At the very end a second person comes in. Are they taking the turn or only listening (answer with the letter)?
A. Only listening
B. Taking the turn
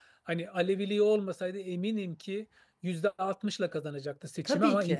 A